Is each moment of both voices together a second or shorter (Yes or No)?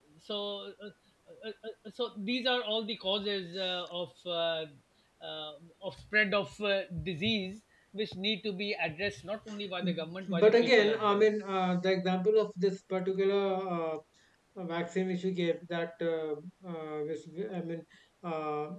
No